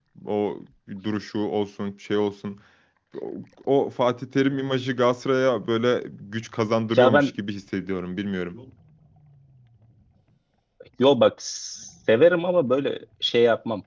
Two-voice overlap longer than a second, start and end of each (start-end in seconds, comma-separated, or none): none